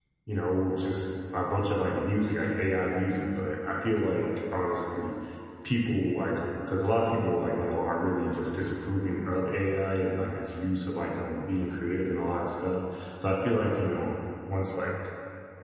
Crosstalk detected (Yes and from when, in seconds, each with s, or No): No